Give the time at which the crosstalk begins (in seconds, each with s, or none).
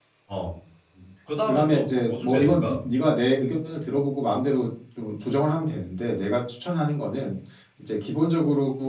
1.5 s